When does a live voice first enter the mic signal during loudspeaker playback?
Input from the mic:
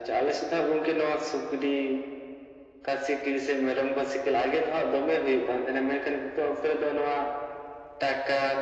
none

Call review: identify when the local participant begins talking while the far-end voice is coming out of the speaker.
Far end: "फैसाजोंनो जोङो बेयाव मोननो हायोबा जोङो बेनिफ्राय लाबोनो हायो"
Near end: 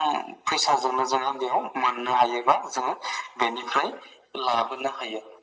none

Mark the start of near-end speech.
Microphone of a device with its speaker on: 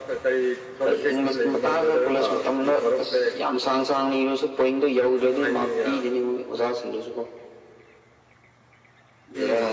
none

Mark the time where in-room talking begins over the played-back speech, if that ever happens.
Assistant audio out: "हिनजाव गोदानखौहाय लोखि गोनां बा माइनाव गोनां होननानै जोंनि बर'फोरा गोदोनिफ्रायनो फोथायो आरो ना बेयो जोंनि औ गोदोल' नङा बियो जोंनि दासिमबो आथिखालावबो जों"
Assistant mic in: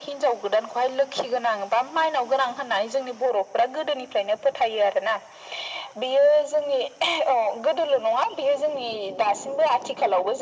none

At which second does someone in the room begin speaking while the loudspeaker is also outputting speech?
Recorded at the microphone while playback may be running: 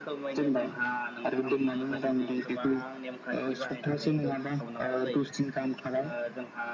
none

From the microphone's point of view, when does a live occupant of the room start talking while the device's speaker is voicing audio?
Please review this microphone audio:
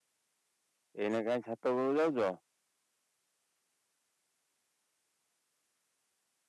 1 s

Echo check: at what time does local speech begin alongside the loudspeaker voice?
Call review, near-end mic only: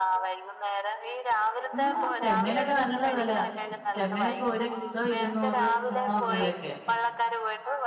2 s

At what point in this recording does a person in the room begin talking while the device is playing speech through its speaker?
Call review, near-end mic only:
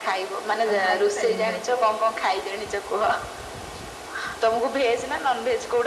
1 s

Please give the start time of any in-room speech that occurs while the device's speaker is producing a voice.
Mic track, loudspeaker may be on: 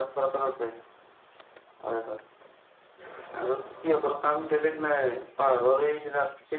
none

